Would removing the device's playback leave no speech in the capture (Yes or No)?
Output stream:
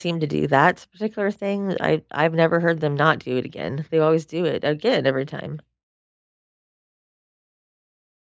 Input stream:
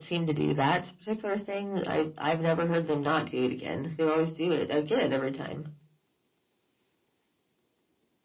Yes